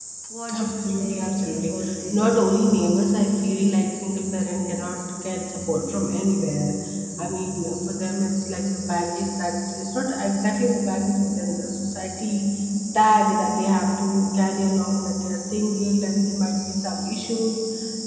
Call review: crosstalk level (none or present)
present